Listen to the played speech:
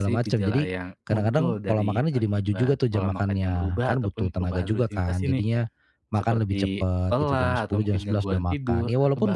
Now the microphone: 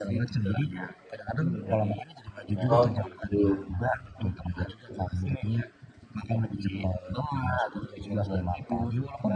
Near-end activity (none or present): present